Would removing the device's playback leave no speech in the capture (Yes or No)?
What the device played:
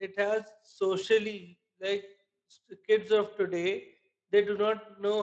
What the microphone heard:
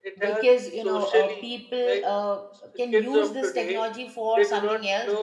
No